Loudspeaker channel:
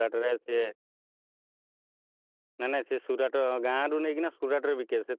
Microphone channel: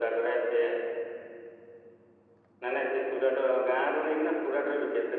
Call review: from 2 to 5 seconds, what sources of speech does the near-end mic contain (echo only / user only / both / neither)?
echo only